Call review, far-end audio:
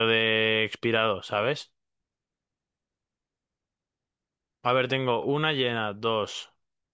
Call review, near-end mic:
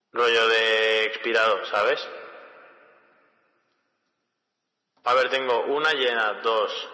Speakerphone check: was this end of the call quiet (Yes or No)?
Yes